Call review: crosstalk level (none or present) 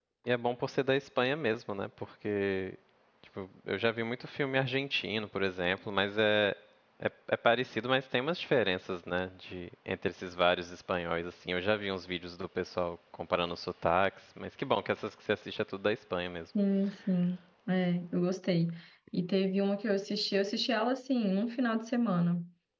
none